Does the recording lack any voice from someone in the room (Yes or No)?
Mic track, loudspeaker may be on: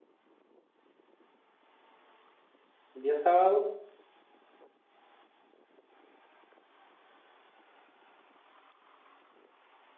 No